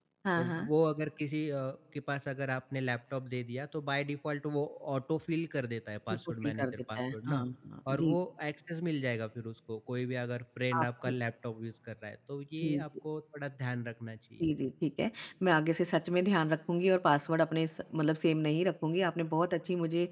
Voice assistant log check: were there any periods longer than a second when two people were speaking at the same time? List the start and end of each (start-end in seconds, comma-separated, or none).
6.1-7.4